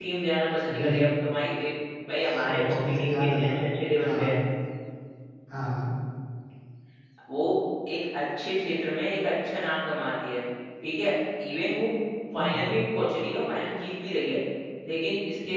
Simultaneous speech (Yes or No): Yes